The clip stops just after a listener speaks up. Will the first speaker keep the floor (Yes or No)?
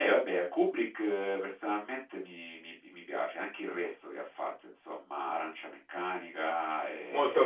No